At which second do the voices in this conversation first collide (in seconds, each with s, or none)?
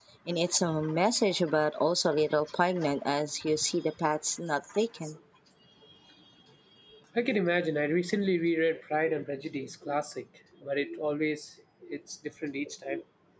none